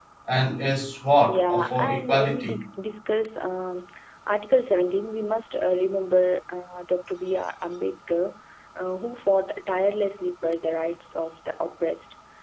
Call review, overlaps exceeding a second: present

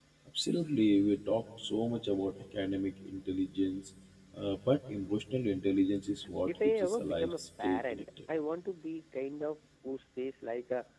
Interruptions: present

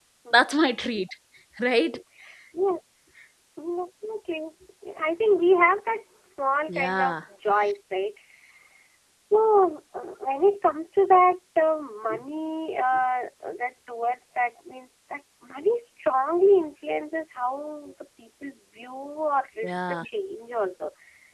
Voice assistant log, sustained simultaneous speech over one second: none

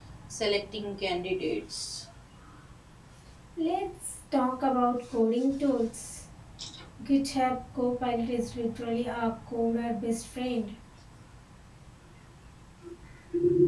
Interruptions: none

